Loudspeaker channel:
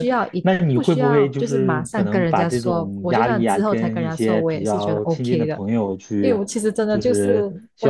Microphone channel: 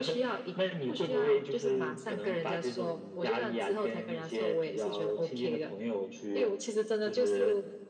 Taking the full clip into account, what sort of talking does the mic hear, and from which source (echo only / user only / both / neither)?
echo only